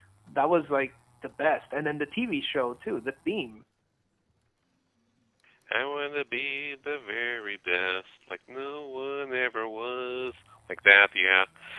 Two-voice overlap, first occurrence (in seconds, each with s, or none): none